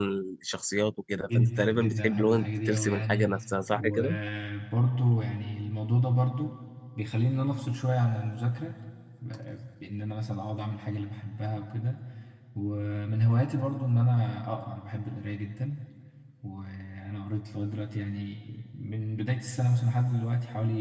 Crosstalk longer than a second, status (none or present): present